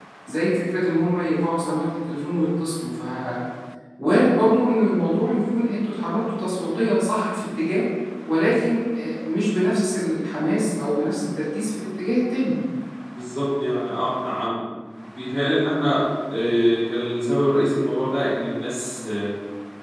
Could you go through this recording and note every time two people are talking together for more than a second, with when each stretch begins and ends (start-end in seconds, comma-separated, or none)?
none